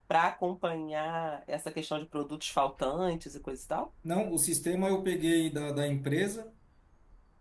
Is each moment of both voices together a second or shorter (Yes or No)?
Yes